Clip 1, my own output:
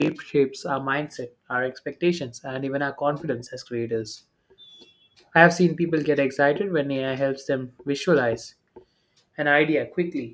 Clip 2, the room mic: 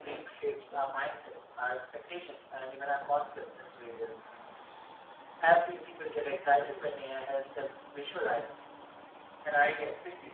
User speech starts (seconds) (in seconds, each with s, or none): none